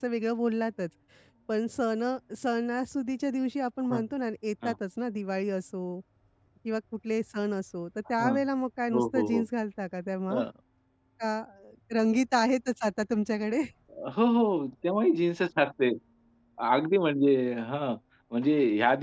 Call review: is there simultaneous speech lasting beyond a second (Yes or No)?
No